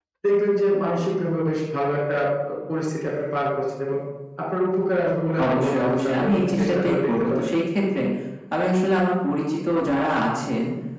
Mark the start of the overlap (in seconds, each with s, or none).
5.4 s